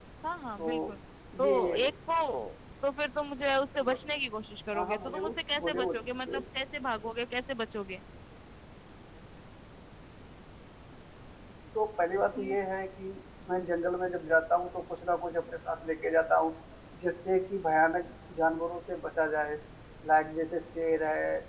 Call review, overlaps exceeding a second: present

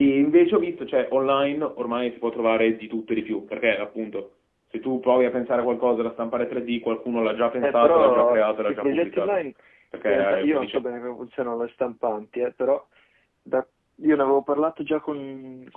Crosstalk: present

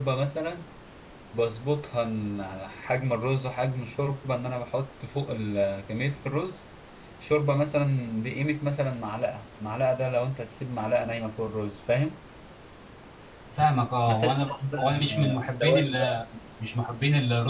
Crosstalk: present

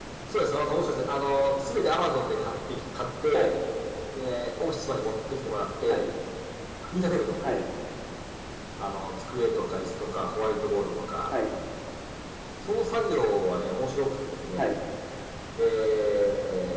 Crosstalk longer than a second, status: none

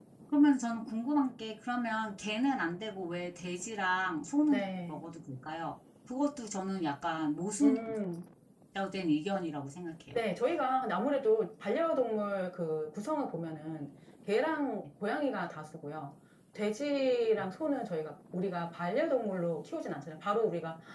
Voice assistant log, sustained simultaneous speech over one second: none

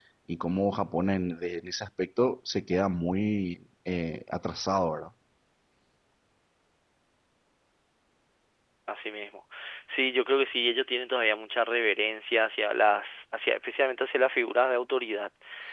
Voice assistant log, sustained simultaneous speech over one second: none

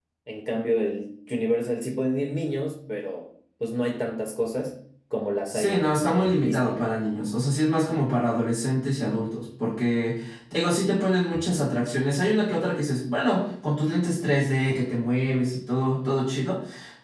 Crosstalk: present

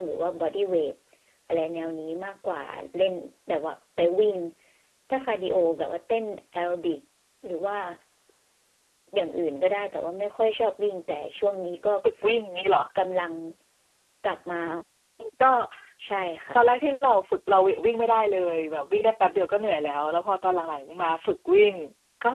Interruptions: none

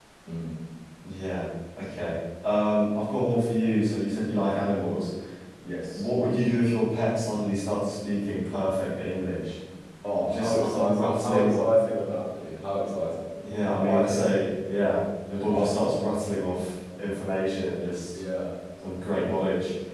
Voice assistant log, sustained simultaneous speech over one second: present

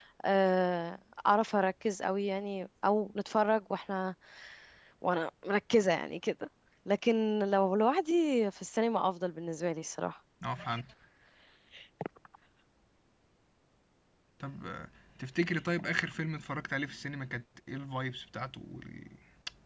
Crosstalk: none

